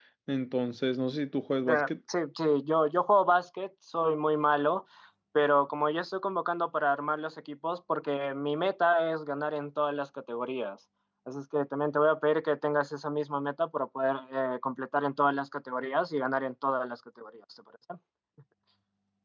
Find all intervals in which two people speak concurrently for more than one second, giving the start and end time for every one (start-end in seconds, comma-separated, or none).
none